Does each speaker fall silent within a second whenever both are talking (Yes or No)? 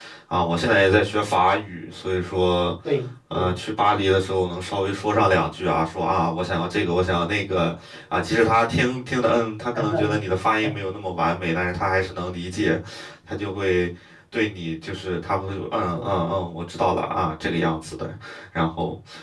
Yes